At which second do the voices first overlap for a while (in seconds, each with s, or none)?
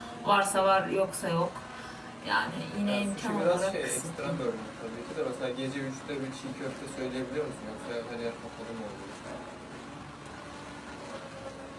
2.8 s